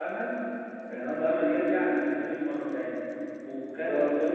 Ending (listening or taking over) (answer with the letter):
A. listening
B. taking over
A